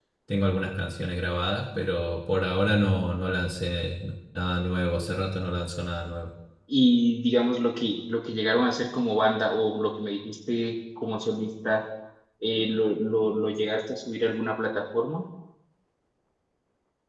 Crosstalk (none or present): none